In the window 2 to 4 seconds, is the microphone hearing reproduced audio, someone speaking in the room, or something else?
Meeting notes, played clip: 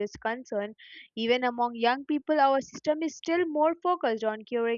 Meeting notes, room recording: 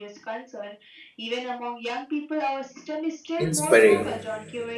both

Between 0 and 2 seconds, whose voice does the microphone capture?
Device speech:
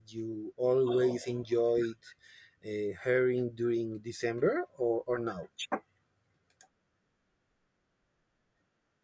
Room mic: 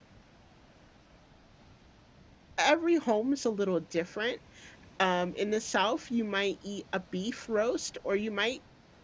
neither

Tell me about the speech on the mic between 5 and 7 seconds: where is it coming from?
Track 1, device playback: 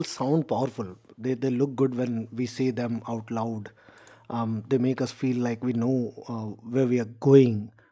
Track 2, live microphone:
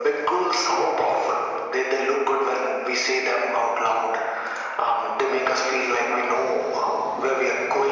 echo only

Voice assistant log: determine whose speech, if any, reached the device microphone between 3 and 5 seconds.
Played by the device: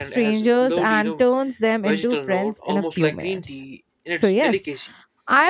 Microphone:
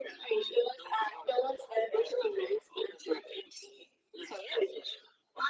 echo only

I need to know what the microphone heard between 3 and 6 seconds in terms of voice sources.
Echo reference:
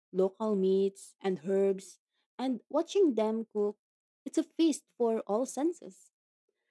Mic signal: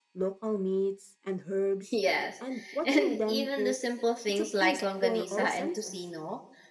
both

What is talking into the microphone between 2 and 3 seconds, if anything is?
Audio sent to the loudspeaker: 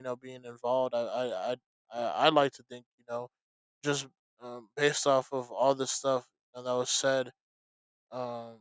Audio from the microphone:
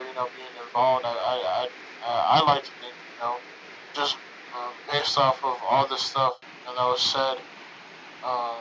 echo only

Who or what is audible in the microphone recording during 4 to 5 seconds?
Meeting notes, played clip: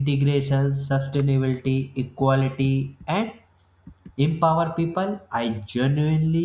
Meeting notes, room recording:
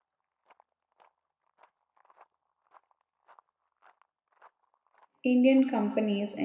neither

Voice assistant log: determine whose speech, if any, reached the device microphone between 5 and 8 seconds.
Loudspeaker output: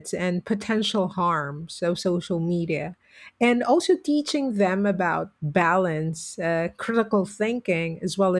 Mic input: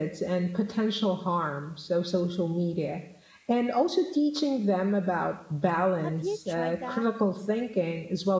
both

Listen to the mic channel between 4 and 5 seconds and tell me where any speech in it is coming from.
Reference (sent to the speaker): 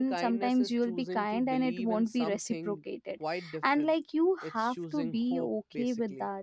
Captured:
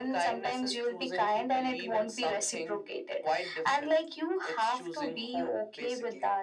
echo only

